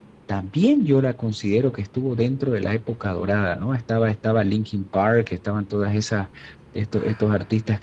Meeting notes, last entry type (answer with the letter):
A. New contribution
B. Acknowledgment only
B